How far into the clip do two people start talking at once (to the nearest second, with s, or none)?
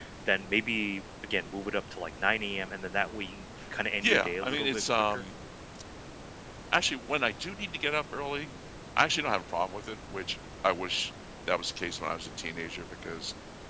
4 s